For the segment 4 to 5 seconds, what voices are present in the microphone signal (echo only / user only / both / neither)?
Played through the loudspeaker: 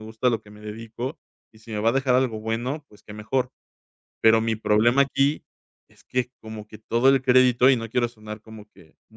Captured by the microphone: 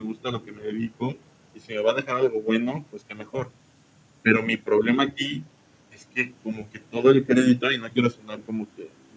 echo only